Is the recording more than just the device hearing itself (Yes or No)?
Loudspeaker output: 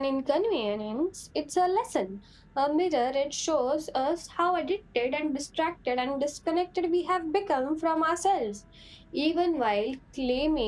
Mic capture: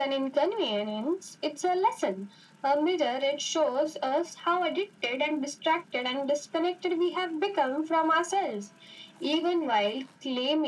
No